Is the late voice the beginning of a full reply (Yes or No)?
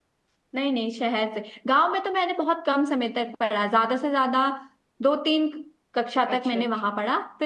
No